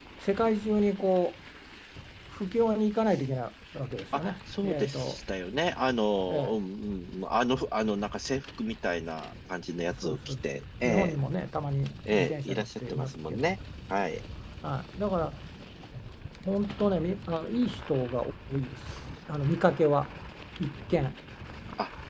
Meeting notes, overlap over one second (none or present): present